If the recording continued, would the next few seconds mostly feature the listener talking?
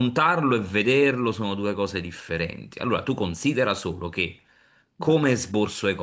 No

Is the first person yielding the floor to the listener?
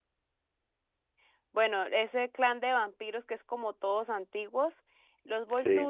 No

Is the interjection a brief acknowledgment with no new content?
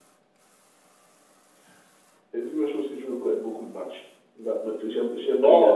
No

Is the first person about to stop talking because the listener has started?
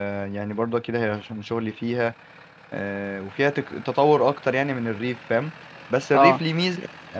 No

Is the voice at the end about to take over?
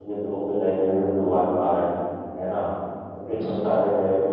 No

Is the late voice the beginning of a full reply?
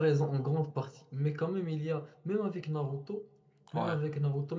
No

